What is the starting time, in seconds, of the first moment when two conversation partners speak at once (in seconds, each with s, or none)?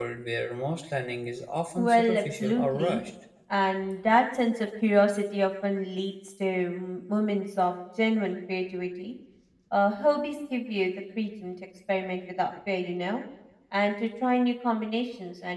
1.8 s